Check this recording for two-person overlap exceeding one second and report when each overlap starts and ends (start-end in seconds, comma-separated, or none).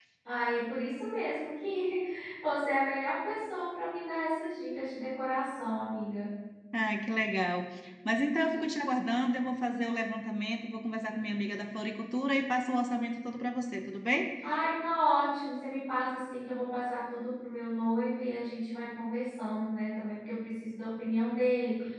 none